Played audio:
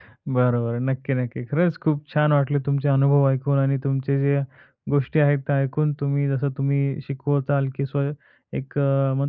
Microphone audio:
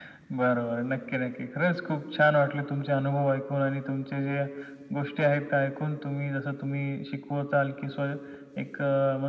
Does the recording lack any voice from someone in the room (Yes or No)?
Yes